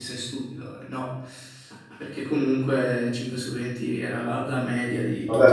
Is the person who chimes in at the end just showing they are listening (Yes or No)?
No